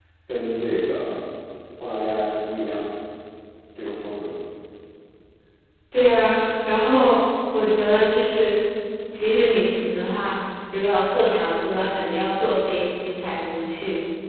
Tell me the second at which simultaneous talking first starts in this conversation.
none

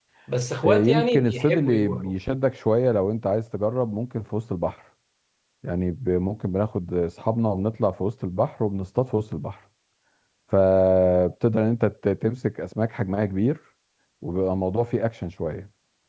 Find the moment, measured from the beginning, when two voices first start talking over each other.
0.6 s

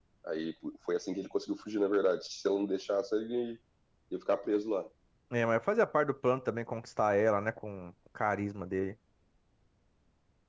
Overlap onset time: none

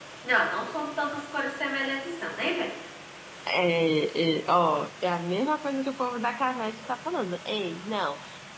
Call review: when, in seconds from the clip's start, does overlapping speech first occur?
none

